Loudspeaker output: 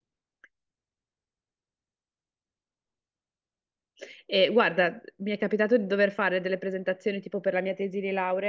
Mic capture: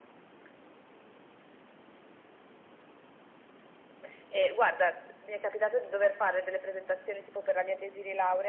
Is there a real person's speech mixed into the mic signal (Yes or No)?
No